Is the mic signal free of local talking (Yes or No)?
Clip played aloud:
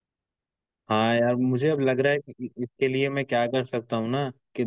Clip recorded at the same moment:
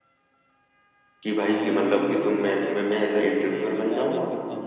No